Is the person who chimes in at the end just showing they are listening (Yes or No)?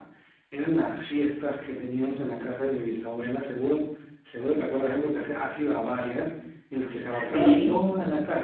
Yes